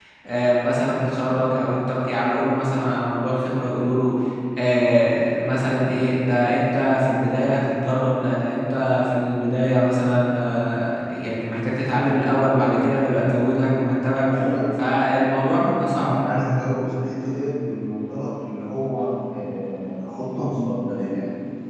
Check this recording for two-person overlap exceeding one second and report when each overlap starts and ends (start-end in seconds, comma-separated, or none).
none